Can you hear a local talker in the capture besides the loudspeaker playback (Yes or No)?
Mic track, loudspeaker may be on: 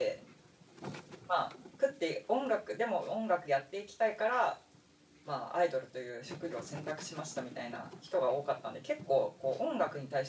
Yes